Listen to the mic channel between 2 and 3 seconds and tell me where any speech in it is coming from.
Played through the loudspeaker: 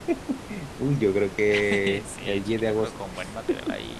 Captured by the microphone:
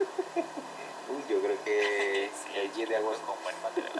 echo only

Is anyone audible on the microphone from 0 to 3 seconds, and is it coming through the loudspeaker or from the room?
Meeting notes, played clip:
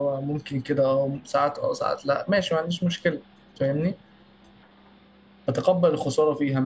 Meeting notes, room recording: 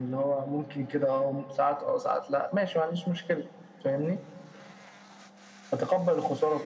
echo only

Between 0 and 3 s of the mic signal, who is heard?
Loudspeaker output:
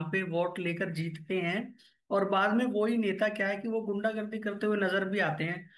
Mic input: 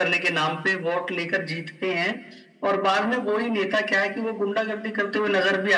echo only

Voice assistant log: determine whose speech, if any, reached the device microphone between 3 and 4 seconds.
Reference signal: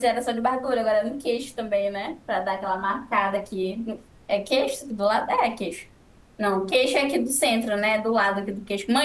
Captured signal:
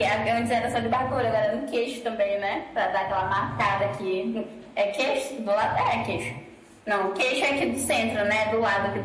echo only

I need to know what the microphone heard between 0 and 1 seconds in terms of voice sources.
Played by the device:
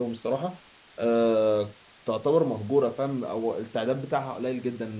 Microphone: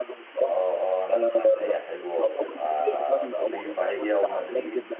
both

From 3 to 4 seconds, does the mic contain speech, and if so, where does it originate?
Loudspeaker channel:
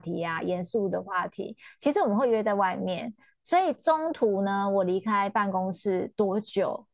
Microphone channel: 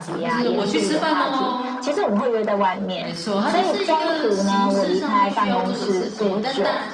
both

